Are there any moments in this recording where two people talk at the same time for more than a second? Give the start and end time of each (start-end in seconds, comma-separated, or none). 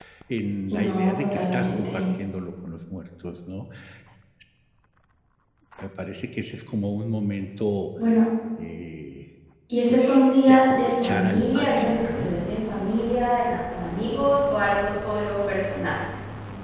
0.8-2.0, 9.9-12.3